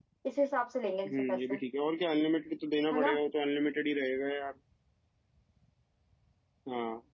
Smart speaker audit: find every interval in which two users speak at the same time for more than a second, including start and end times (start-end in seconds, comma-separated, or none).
none